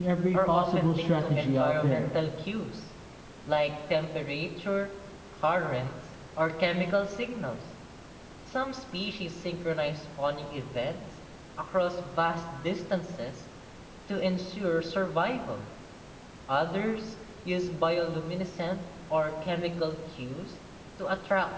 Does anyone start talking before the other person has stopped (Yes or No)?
Yes